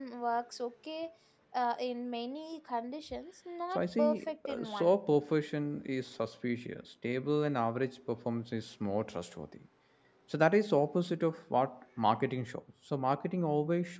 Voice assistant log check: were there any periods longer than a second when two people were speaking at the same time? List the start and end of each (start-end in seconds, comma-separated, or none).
3.8-5.0